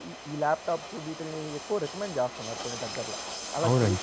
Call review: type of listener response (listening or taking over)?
taking over